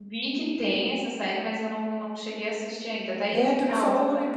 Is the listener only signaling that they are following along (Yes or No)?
No